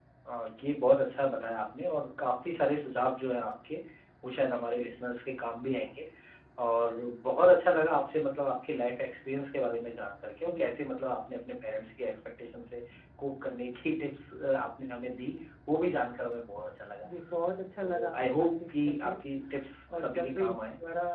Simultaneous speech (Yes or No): Yes